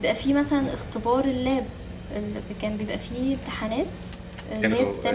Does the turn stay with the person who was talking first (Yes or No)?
No